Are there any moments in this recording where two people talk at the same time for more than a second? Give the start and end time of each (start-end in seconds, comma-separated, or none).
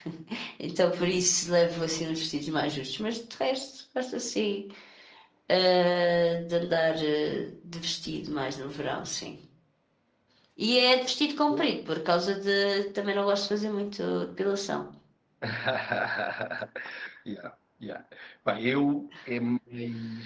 none